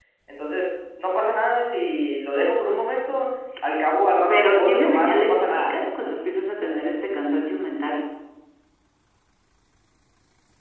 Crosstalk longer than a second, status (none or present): present